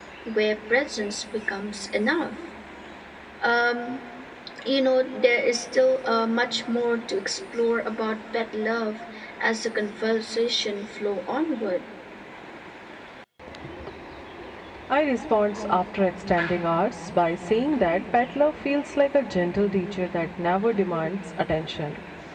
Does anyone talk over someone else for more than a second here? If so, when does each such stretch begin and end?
none

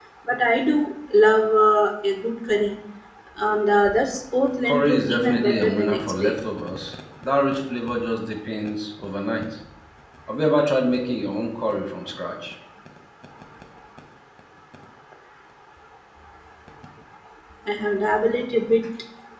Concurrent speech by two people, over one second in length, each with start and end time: 4.7-6.3

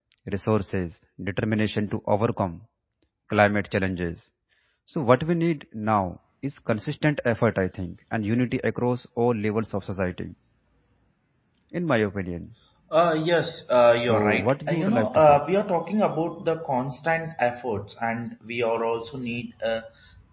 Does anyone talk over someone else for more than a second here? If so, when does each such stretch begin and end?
14.0-15.4

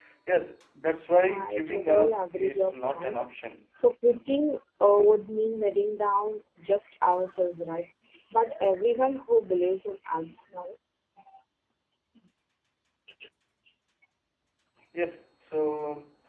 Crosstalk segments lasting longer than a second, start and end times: 1.3-3.2

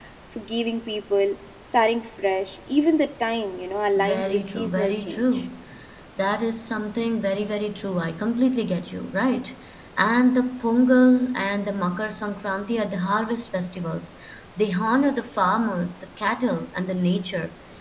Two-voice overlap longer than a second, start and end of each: 4.0-5.4

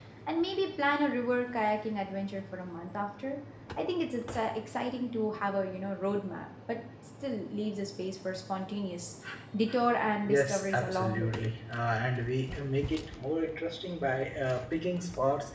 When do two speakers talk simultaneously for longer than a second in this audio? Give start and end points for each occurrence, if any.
10.2-11.5

